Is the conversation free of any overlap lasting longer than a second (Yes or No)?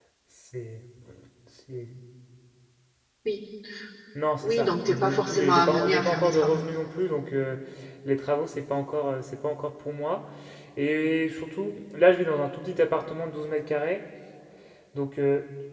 No